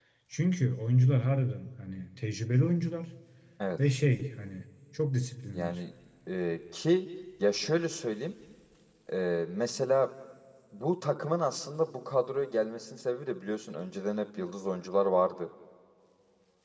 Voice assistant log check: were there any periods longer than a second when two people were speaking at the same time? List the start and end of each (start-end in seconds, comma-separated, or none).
none